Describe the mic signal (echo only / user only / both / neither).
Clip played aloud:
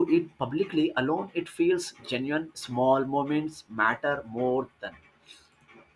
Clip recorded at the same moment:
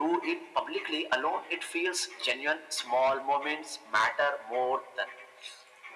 echo only